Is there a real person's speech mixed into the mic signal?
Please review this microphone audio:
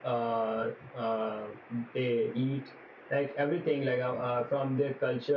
No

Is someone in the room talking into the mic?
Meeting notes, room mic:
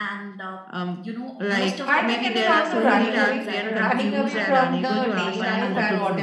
Yes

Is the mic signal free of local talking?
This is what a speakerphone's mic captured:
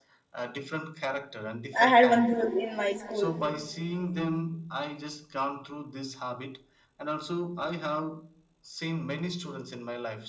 No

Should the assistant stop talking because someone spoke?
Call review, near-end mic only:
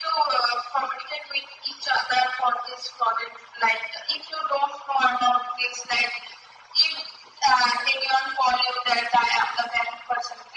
No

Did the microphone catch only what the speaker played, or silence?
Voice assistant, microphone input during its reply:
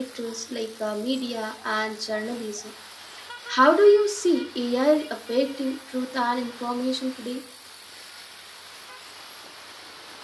No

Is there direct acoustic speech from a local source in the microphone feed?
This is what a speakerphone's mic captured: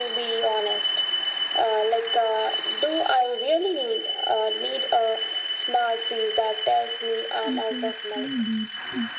Yes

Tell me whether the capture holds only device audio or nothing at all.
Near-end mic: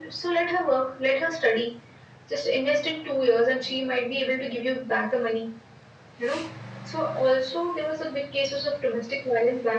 Yes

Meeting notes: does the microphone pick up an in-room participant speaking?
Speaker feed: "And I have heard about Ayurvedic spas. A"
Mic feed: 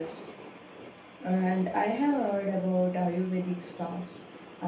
No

